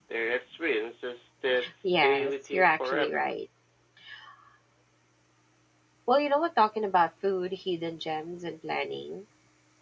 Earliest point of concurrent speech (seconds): 1.6 s

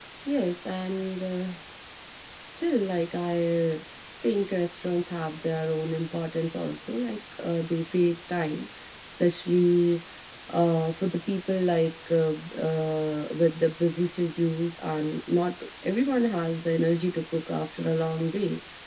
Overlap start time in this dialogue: none

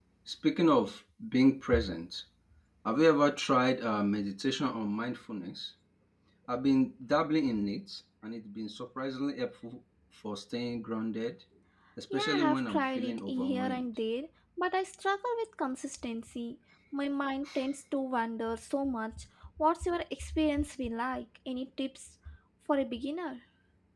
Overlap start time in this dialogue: 12.1 s

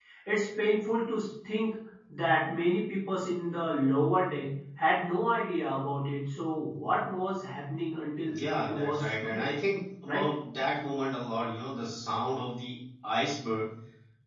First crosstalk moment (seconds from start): 8.3 s

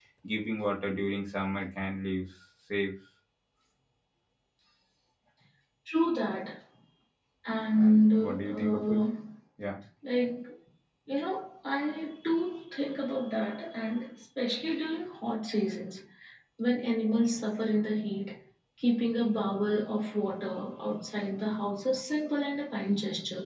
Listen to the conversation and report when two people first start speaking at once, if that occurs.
7.8 s

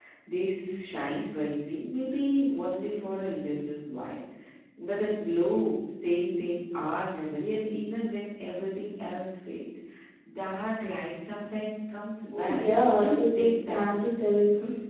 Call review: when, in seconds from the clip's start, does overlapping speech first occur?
12.3 s

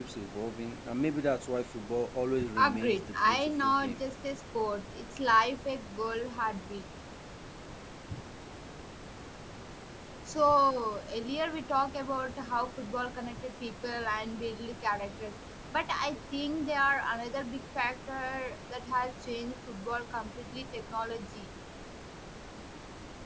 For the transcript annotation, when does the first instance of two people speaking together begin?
2.3 s

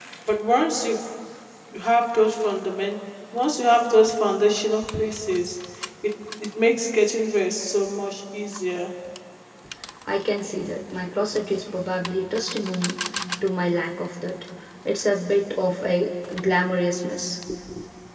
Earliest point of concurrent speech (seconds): none

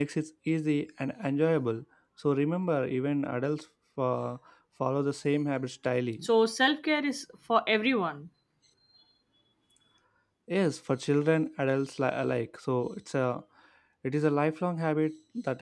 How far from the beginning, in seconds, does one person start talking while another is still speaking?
none

